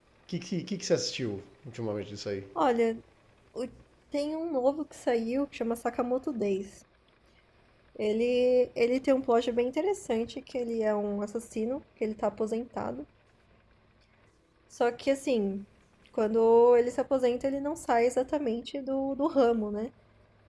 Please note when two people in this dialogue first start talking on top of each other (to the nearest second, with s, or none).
none